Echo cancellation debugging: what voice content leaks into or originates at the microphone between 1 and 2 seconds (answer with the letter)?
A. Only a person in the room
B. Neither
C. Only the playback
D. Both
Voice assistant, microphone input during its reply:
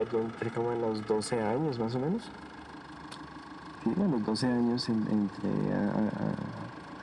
C